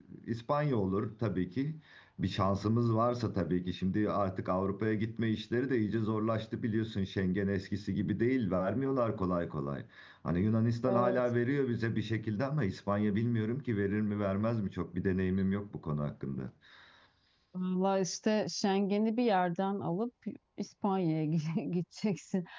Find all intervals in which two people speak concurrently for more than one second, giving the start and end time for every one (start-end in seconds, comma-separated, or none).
none